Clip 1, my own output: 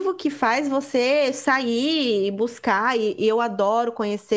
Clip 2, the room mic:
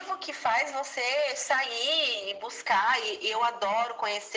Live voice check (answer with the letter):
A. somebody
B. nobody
B